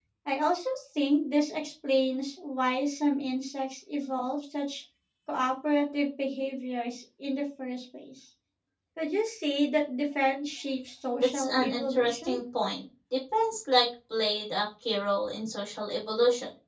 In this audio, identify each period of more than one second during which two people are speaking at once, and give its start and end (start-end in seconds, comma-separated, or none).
11.2-12.4